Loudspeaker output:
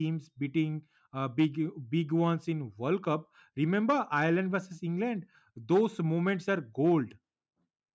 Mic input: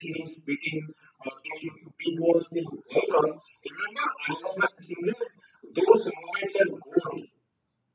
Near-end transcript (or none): none